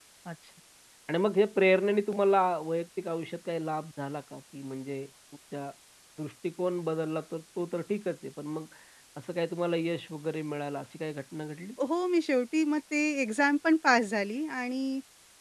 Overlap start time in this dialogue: none

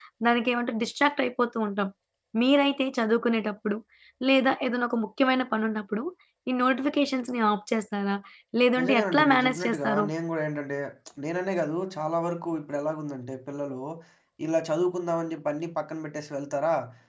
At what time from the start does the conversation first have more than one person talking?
9 s

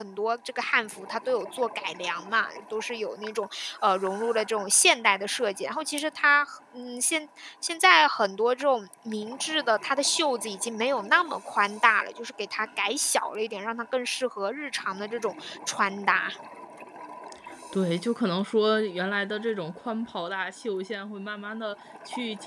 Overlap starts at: none

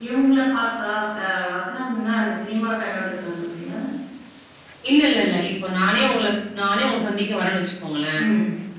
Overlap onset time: none

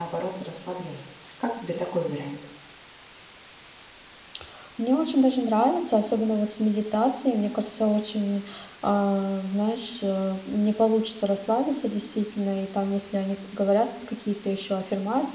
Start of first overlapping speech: none

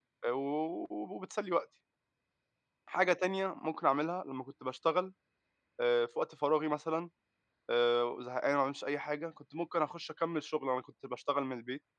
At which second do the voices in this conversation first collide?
none

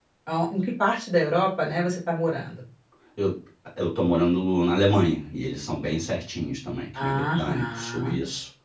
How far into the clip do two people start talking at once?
7 s

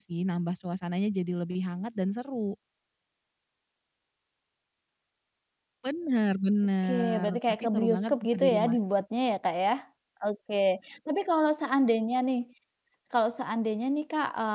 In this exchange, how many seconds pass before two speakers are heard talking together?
7 s

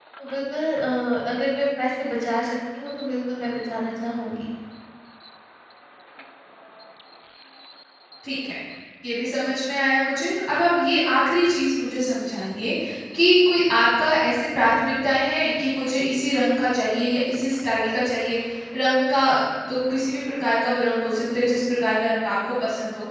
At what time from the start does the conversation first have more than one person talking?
none

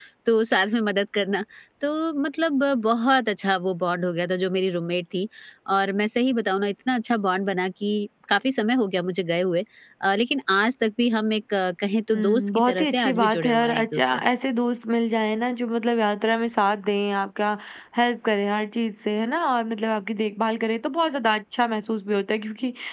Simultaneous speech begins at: 12 s

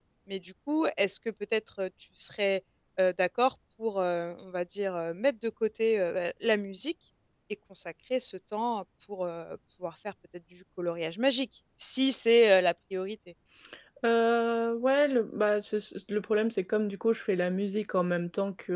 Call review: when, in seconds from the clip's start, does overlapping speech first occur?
none

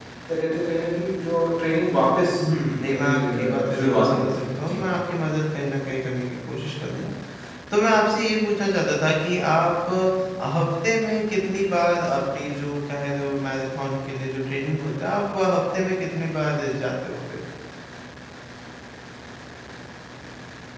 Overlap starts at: 3 s

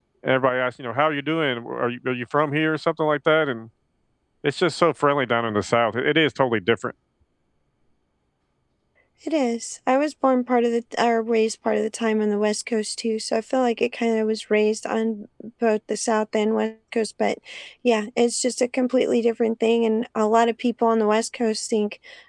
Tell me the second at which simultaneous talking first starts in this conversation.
none

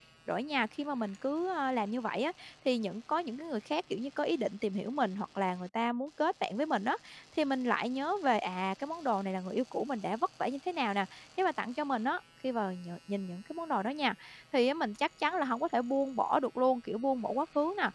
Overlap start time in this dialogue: none

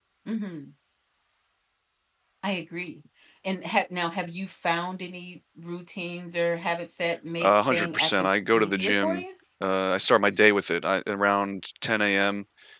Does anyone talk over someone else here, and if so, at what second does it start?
7 s

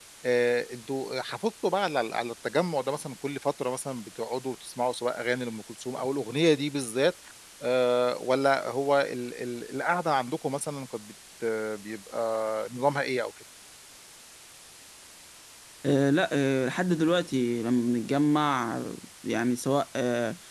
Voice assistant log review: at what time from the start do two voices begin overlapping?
none

